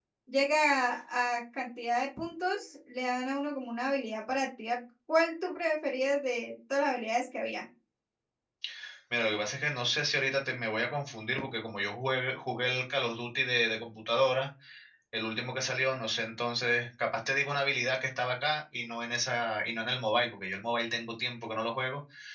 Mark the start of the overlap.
none

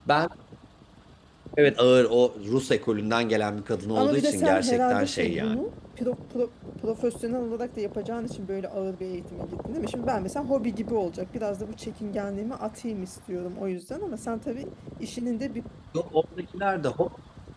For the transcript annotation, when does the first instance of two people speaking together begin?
4 s

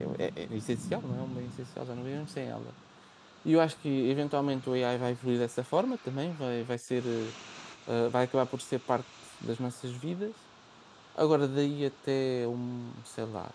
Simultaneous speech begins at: none

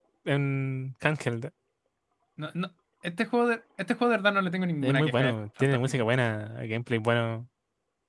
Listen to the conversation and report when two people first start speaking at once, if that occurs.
5 s

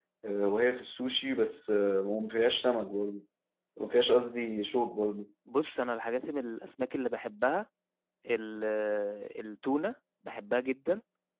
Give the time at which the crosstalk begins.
none

